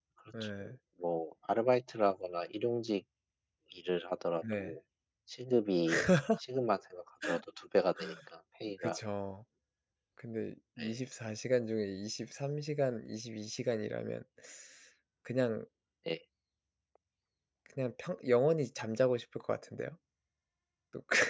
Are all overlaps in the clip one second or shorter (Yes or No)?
Yes